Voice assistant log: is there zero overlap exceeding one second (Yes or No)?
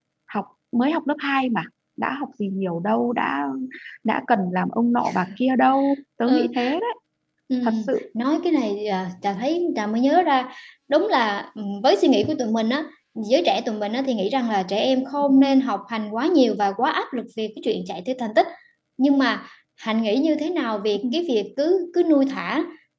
Yes